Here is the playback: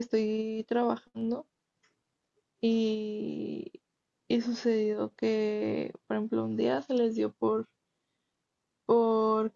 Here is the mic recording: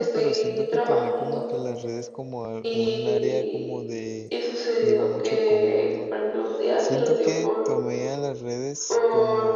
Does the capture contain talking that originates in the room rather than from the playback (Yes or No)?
Yes